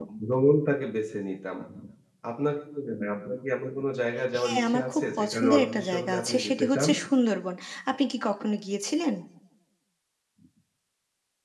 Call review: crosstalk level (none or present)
present